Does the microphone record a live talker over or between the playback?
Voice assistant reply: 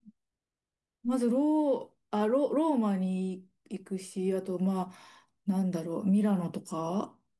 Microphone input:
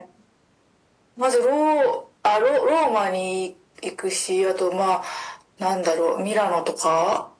No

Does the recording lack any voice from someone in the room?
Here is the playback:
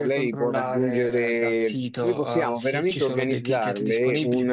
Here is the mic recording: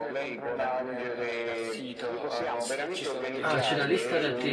No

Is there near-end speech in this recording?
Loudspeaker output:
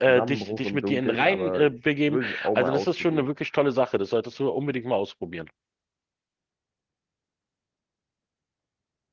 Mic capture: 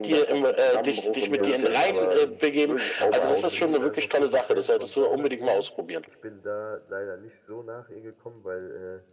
Yes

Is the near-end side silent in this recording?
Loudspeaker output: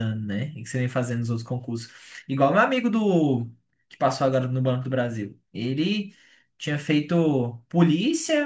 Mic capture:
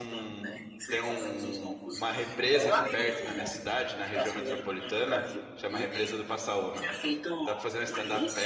No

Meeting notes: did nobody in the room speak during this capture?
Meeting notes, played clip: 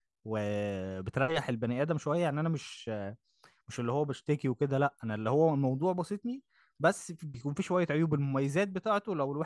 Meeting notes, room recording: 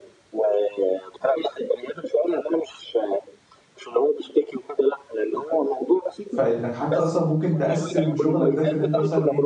No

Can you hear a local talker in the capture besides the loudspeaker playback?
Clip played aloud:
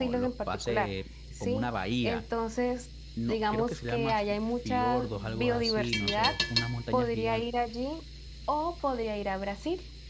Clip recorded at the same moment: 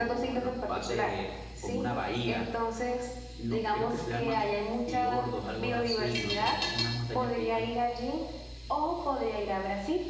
No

